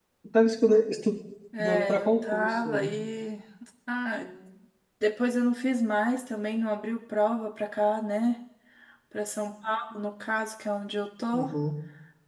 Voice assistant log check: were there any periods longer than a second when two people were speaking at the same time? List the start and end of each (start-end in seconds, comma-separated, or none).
1.6-2.9